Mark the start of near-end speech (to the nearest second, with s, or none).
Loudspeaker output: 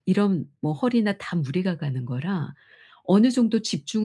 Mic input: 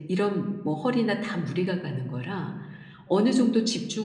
none